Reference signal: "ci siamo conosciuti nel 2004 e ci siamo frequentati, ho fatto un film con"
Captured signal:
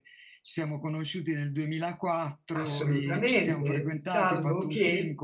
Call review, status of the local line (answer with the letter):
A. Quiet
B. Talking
B